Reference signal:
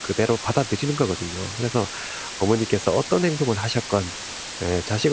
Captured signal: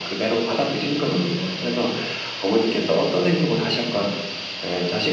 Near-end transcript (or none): 음.